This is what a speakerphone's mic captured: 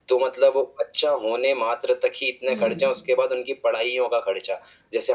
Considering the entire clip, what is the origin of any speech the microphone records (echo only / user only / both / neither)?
both